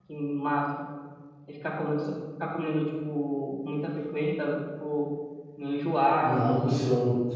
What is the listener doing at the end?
taking over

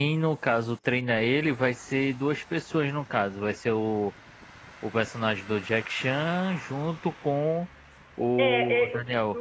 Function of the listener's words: taking over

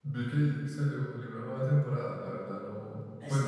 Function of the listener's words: listening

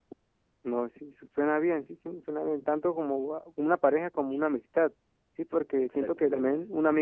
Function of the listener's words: listening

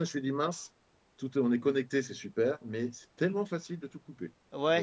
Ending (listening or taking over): taking over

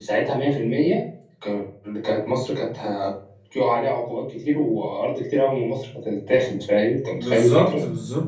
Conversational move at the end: taking over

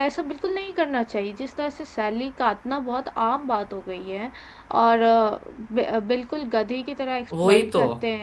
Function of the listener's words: listening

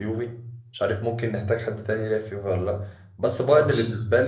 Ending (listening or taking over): listening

